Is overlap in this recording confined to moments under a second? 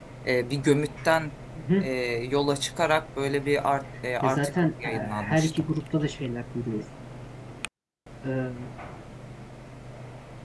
No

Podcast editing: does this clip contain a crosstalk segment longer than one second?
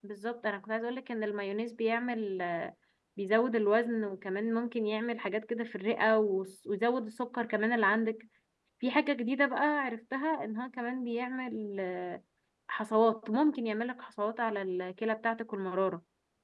No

